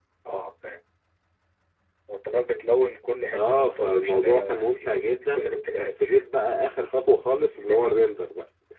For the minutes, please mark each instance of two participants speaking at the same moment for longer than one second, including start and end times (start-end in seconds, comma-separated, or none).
3.3-6.0